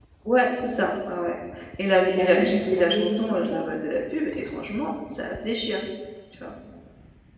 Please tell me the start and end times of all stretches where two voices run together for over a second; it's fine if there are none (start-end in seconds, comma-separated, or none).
2.1-3.7